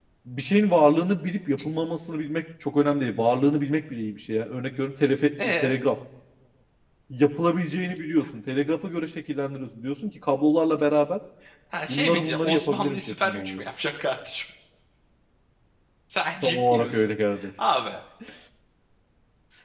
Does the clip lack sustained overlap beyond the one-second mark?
No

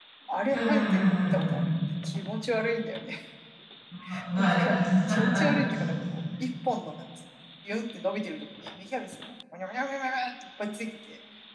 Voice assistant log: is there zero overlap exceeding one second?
No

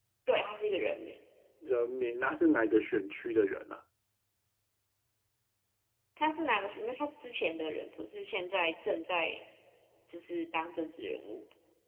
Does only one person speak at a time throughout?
Yes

